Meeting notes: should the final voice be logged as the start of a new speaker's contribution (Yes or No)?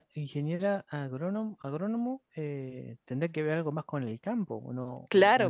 Yes